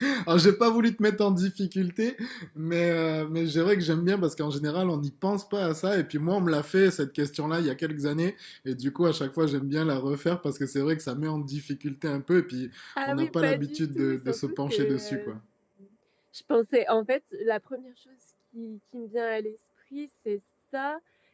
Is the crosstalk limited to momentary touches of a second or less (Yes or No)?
No